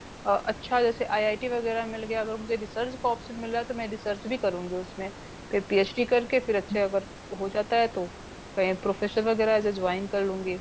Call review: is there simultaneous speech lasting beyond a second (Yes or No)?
No